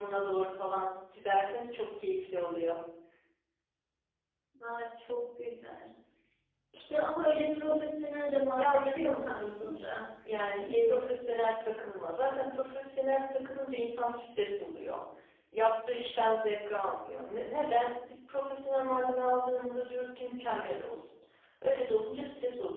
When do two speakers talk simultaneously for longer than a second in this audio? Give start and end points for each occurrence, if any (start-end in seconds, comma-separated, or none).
8.6-10.0